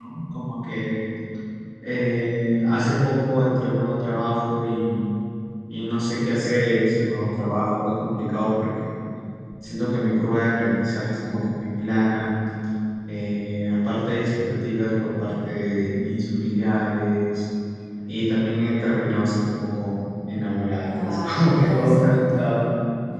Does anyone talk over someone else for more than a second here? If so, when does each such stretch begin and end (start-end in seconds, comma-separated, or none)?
20.9-22.5